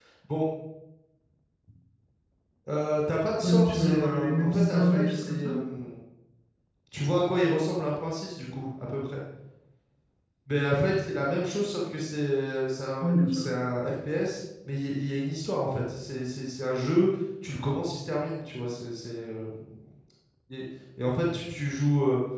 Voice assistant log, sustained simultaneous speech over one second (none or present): present